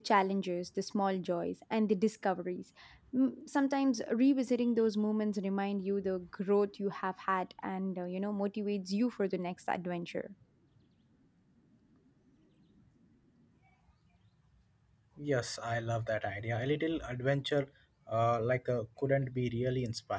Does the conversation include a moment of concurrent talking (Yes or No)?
No